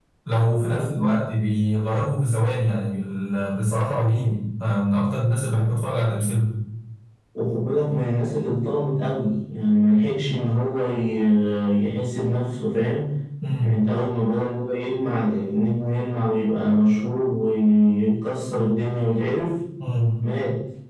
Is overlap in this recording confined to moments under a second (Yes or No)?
Yes